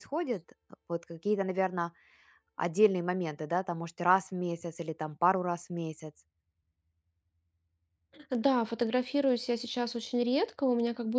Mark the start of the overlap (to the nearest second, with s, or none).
none